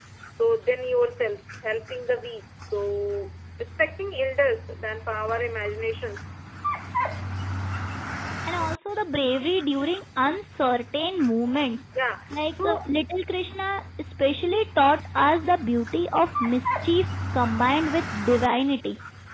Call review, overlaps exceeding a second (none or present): none